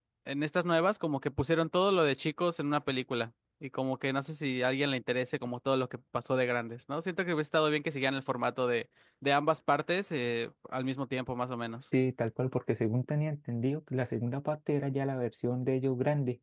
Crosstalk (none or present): none